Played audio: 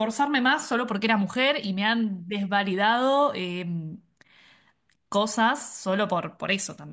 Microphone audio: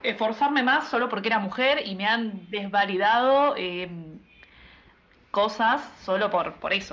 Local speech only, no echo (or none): none